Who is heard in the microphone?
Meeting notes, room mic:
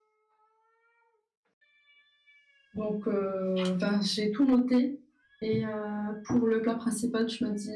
user only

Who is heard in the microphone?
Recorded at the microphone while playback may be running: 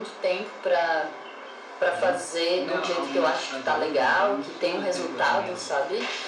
both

